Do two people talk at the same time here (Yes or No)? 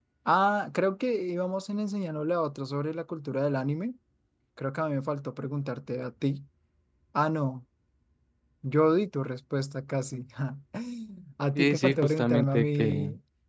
Yes